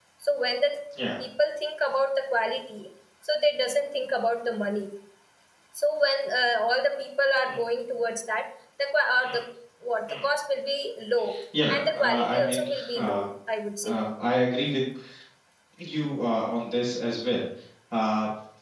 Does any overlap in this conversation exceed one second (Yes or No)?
Yes